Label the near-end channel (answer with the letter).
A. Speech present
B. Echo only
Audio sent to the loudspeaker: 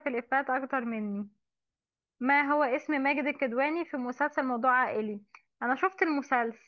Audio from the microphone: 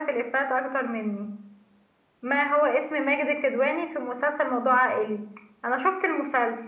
B